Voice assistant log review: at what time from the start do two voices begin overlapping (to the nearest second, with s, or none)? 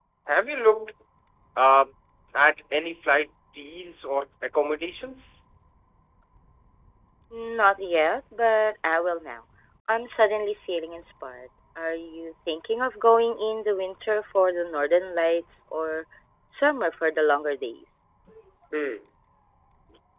none